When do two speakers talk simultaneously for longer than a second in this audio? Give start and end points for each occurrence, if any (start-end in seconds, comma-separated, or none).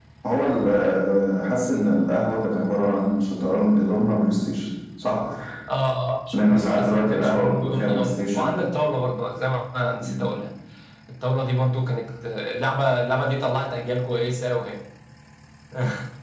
6.3-8.6